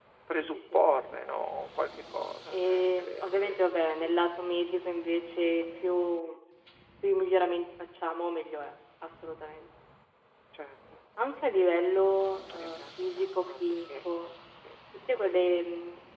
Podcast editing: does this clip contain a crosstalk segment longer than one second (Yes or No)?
Yes